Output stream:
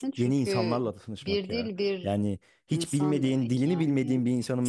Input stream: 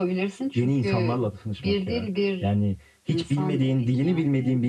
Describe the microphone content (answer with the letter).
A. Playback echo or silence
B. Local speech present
A